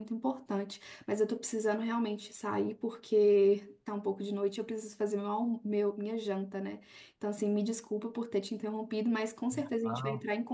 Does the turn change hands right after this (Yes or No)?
No